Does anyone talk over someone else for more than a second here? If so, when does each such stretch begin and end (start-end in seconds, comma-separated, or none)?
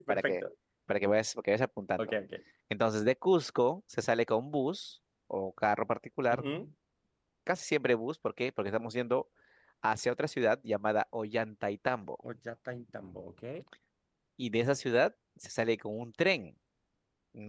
none